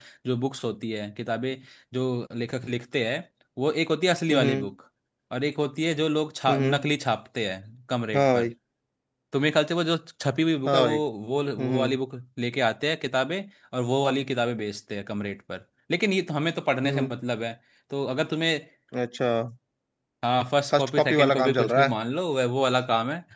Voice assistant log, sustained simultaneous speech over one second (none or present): present